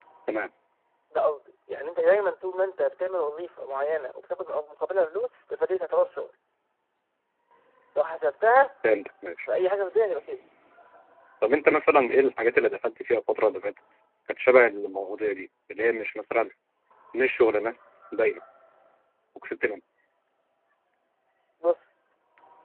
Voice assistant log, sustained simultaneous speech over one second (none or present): none